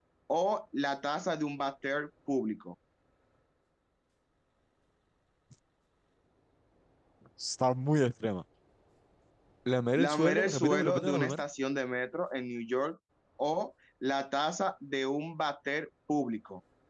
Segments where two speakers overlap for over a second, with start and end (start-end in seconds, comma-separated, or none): 9.9-11.4